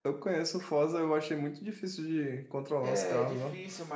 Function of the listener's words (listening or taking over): taking over